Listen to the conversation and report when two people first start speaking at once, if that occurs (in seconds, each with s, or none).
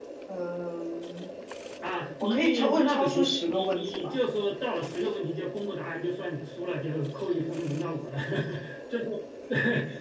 2.2 s